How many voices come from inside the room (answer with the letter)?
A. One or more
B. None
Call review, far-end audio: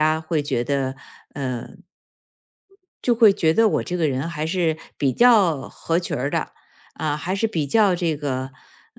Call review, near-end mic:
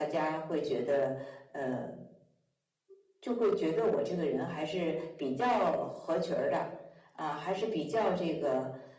B